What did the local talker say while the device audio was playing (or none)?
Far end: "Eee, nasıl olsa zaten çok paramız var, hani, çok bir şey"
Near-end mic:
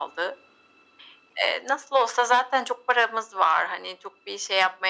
none